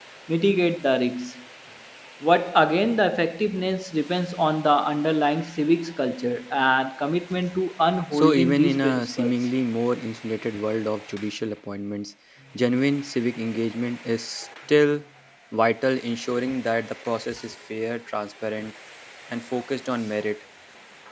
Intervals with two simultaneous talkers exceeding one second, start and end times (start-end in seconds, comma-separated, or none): 8.1-9.3